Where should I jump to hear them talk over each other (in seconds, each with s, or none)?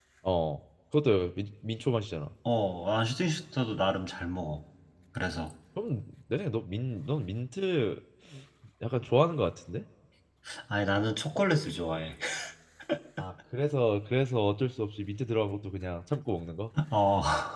none